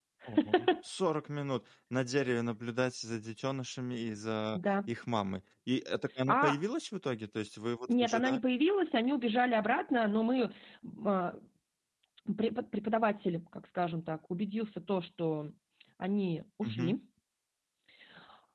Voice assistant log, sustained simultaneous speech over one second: none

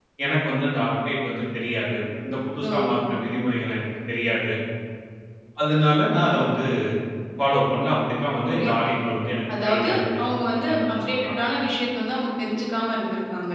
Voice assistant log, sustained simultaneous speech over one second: present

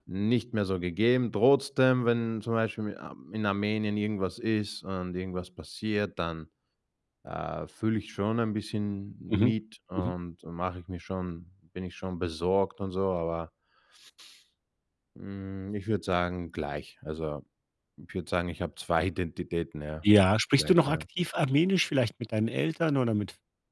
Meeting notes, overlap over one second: none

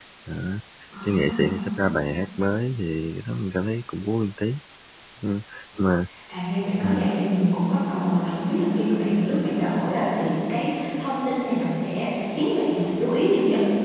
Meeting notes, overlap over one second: none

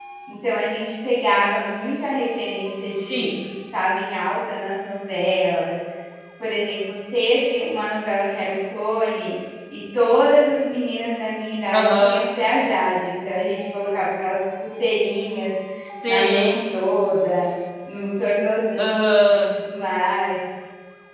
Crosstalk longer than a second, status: none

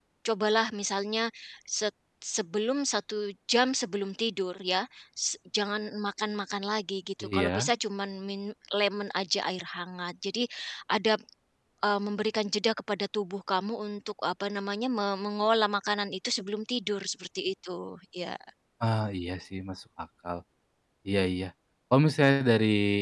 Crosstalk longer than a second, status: none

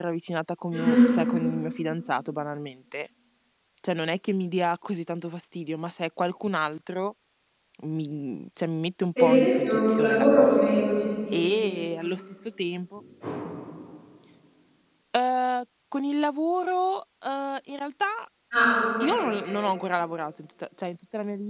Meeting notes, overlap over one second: present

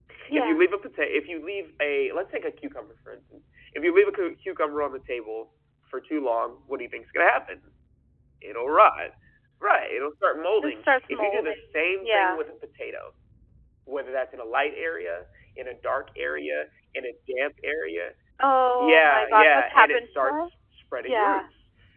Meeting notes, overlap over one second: present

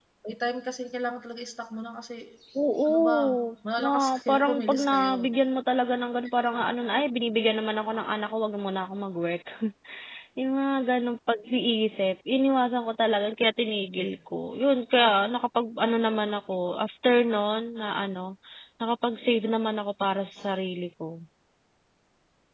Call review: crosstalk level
present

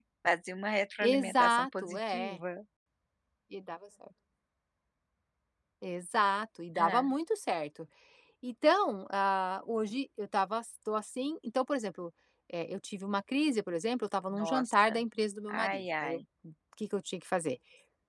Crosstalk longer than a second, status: present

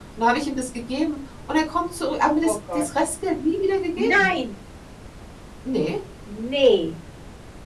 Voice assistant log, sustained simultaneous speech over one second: none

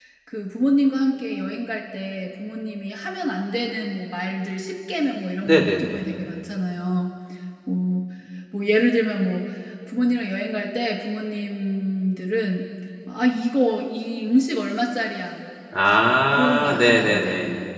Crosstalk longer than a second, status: present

